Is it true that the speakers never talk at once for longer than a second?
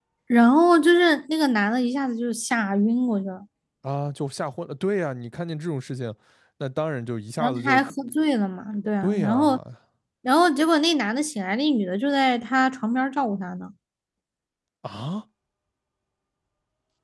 Yes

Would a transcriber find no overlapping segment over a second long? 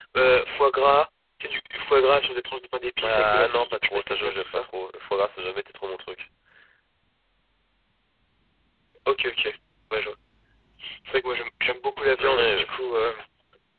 No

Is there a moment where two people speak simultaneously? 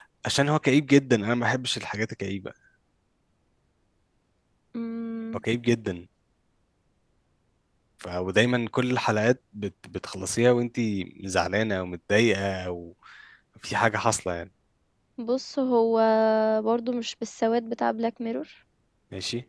No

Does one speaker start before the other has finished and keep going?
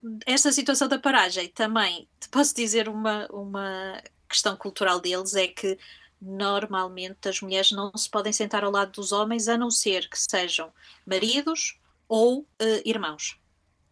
No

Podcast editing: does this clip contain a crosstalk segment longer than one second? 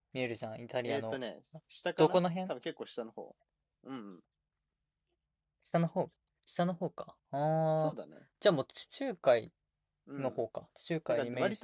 No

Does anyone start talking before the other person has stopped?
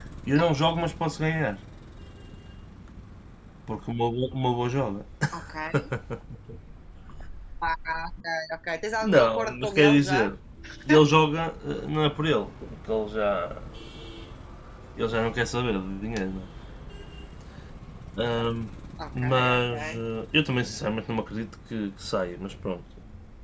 Yes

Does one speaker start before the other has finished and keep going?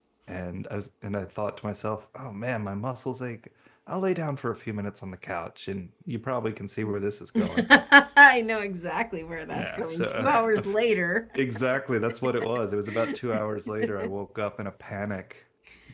Yes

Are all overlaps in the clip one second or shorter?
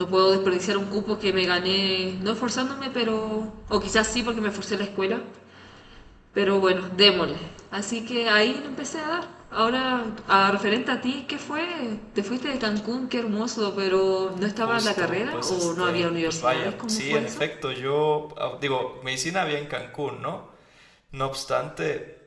No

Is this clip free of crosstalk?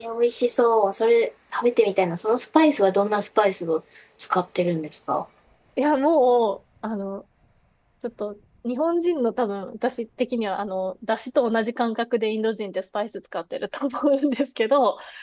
Yes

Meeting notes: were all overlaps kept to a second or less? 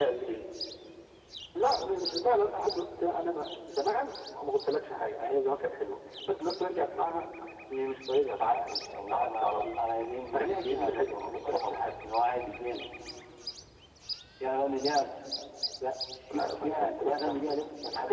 No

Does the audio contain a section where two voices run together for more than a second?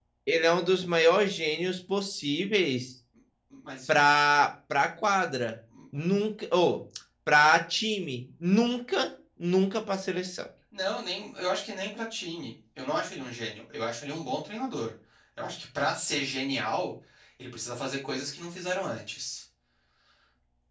No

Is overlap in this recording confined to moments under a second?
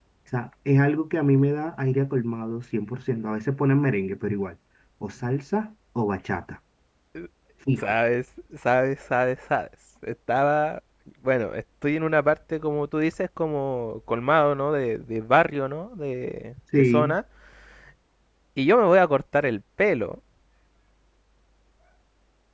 Yes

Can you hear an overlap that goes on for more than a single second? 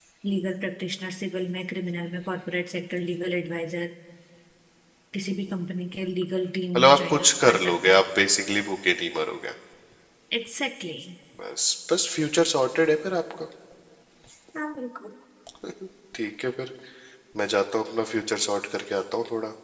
Yes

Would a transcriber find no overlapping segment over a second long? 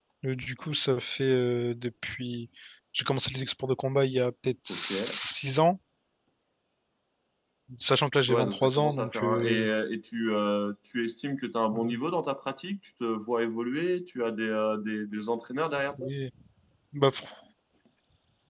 No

